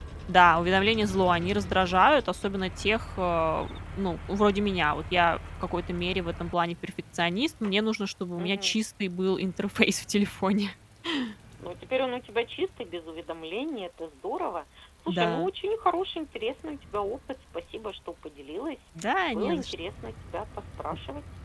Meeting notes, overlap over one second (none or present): none